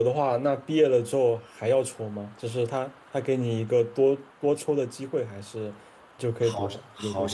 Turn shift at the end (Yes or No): Yes